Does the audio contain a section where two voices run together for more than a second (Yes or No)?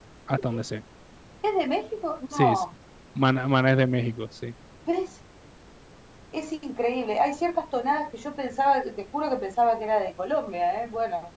No